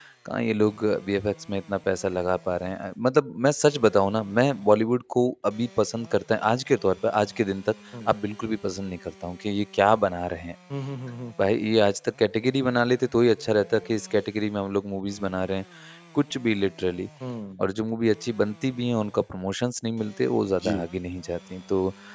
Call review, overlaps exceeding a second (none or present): none